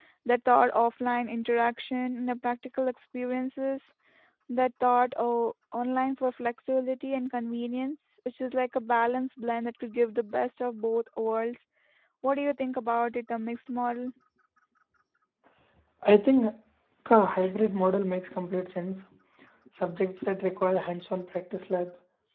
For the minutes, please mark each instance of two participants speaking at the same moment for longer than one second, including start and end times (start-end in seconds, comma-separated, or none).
none